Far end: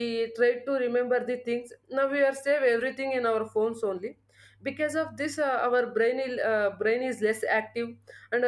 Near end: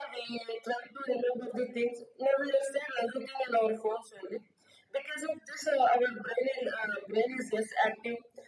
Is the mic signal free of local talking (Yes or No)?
Yes